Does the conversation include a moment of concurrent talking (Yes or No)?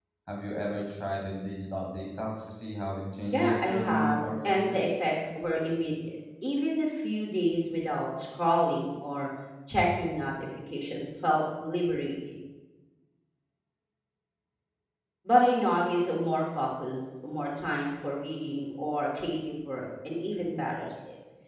Yes